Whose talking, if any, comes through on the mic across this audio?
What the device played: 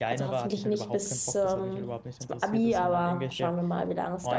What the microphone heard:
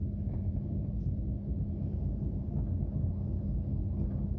neither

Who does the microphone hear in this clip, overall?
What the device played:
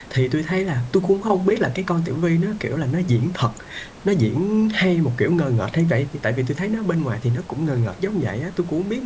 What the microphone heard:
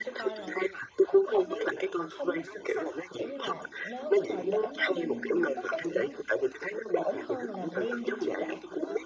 both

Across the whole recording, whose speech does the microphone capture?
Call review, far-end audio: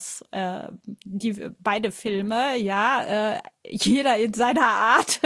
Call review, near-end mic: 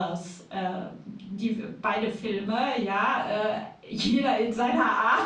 echo only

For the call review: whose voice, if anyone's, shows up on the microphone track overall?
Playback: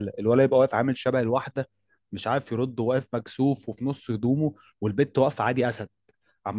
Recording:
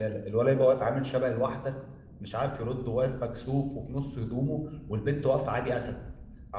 echo only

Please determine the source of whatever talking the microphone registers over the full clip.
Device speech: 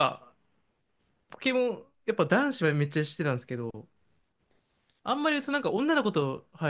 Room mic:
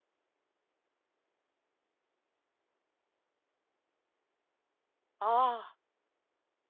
user only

